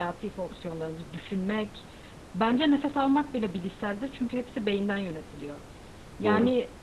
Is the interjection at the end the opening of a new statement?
No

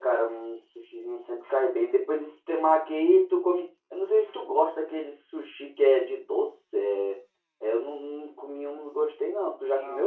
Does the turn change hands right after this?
Yes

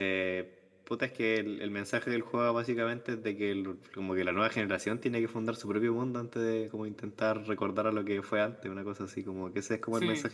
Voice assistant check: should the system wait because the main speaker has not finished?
Yes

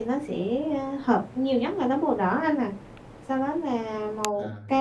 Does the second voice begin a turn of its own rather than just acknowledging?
No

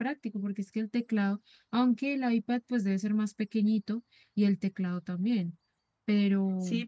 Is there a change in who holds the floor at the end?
Yes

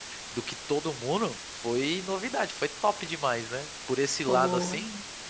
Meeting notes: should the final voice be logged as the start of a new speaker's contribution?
No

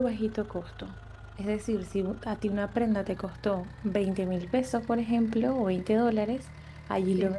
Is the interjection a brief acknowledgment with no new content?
Yes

